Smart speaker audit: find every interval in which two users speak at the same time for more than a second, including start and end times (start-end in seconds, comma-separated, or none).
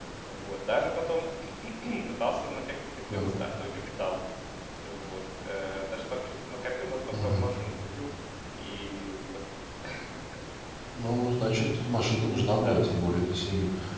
none